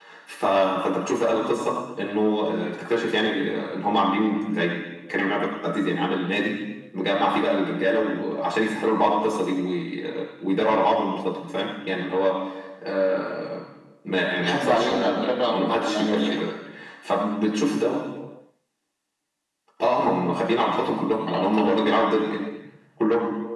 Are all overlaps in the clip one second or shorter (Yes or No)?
No